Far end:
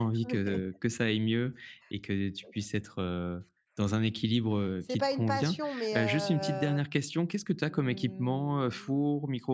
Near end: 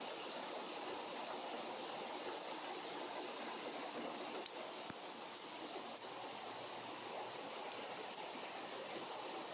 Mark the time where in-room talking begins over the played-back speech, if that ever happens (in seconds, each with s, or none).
none